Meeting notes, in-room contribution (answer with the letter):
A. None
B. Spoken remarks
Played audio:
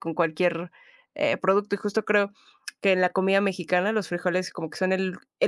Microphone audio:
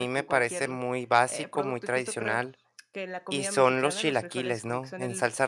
B